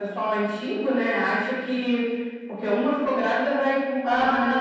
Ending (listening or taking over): taking over